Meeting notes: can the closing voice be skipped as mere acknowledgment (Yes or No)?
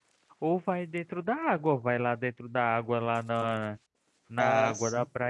Yes